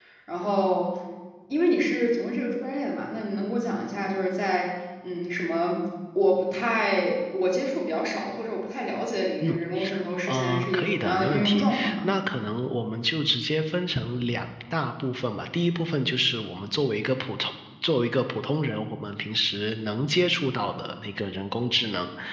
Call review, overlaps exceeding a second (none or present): present